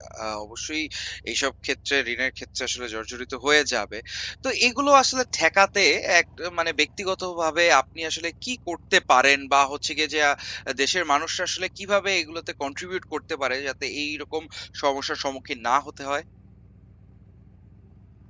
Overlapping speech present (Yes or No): No